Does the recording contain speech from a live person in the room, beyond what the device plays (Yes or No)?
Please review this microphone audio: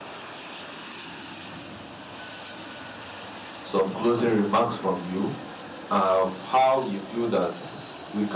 Yes